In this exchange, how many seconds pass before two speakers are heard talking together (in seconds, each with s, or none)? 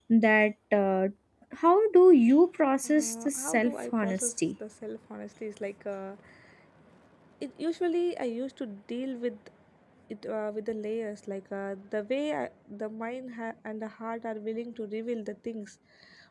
2.8 s